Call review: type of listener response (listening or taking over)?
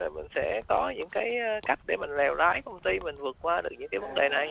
taking over